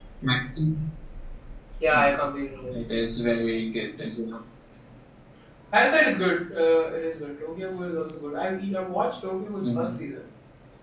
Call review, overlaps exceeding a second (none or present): none